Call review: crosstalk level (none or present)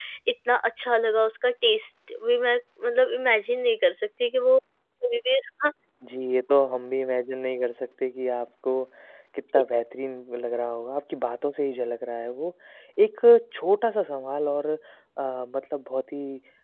none